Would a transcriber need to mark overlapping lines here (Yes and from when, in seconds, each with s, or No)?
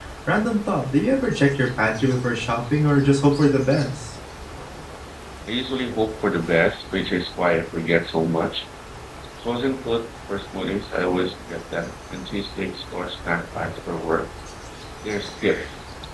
No